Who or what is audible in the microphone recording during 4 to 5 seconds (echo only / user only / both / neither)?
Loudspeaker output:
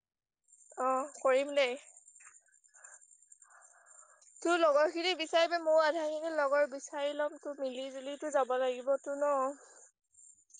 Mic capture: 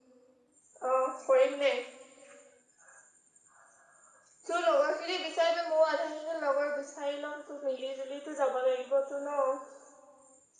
echo only